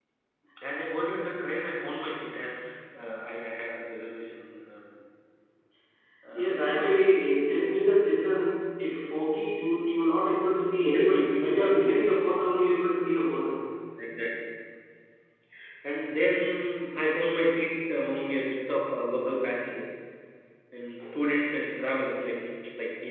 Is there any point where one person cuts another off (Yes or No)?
Yes